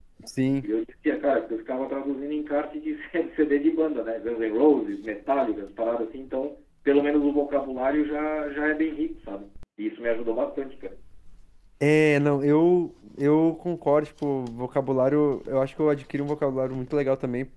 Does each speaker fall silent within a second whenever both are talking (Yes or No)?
Yes